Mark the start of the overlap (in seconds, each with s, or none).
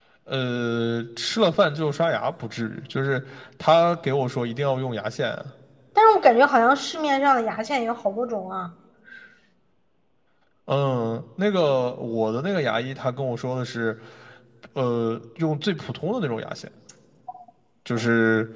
none